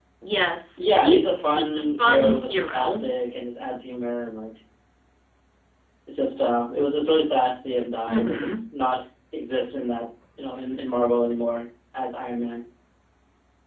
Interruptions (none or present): present